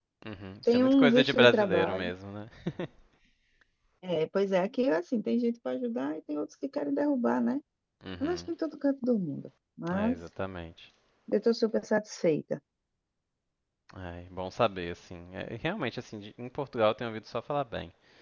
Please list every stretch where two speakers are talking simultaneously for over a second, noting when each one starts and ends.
0.7-2.1

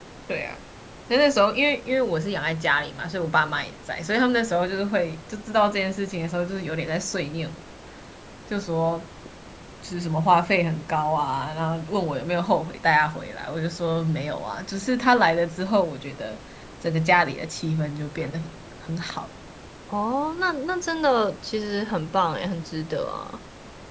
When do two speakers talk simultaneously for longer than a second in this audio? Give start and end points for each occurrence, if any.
none

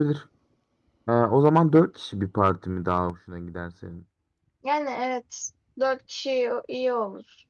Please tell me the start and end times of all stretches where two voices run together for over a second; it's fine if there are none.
none

